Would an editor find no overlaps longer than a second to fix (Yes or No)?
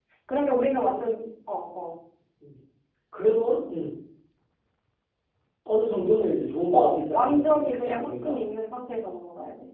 No